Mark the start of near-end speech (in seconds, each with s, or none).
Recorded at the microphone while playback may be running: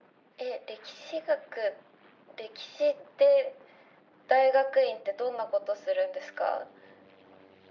none